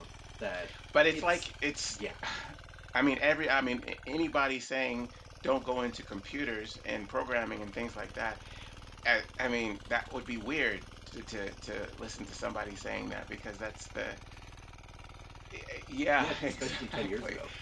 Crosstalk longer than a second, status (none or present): present